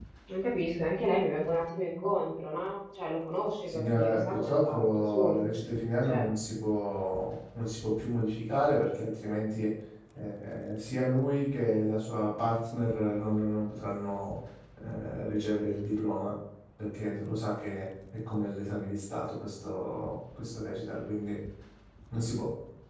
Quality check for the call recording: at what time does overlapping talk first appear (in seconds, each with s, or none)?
3.7 s